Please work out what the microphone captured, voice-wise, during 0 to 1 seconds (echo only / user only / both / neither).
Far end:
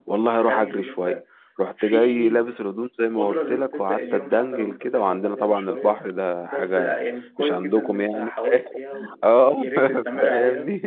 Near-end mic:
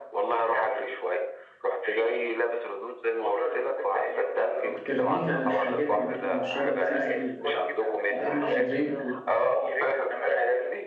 echo only